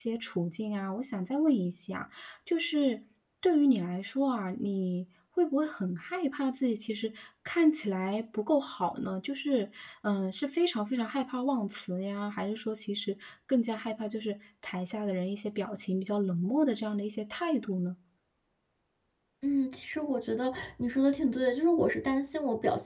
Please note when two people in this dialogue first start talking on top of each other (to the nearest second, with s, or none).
none